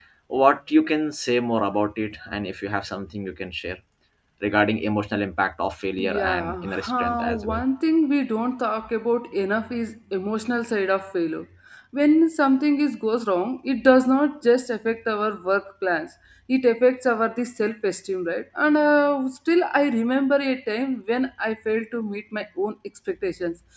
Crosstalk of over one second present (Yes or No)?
Yes